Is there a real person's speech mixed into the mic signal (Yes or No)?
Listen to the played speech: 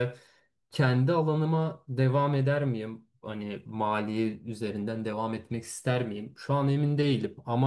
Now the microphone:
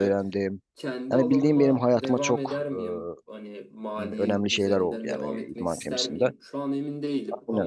Yes